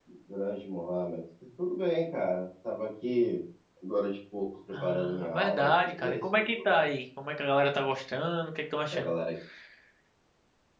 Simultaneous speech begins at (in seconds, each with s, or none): 4.7 s